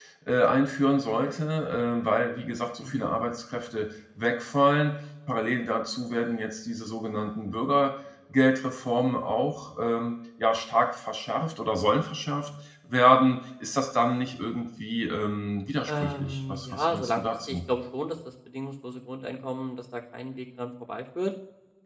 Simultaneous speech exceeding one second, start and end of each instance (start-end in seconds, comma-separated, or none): 15.9-17.6